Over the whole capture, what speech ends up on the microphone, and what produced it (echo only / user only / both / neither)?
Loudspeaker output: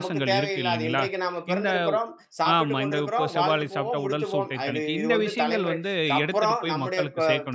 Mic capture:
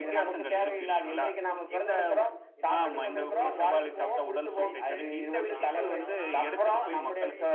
both